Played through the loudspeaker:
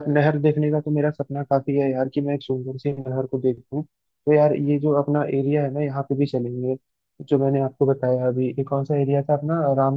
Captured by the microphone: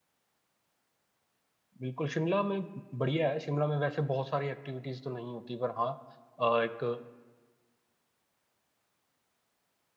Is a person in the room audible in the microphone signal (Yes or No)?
Yes